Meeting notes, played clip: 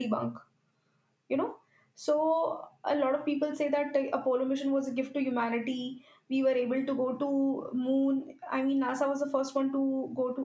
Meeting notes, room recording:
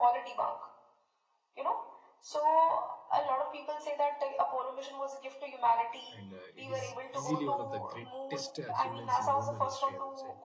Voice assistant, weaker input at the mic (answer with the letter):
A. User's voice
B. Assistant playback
A